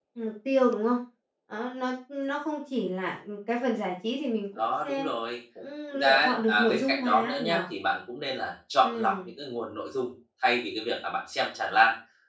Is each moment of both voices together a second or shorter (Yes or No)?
No